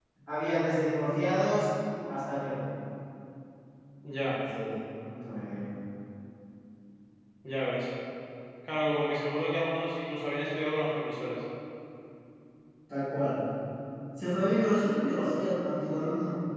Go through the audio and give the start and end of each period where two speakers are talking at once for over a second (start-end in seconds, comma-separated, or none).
none